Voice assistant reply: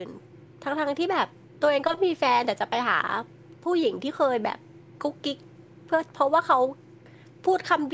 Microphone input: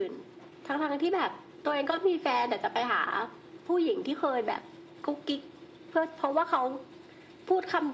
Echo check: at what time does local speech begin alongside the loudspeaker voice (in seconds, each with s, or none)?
none